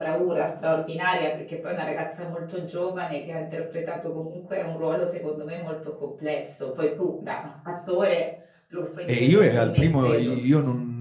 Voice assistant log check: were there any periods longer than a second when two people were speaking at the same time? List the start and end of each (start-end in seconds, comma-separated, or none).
9.1-10.4